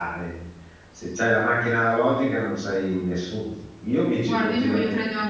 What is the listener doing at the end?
taking over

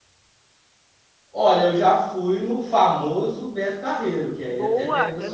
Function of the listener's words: taking over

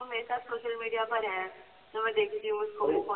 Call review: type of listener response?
listening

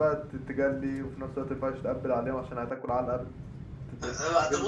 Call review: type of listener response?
taking over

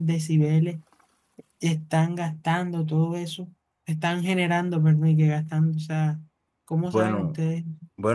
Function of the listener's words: taking over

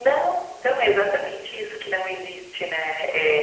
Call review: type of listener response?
listening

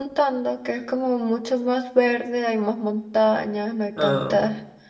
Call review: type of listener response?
listening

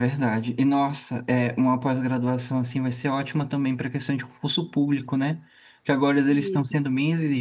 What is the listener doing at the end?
listening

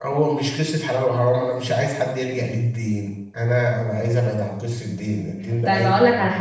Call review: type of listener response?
taking over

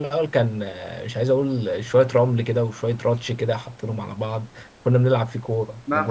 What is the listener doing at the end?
taking over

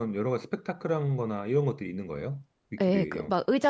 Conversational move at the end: taking over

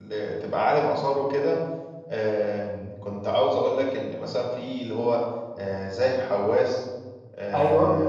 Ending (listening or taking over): listening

